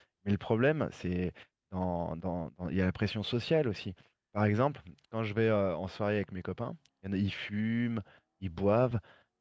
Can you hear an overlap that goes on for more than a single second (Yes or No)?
No